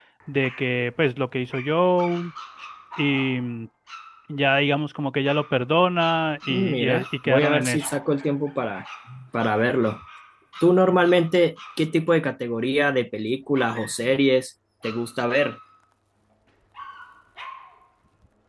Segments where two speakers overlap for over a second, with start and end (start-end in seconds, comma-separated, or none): 6.5-7.9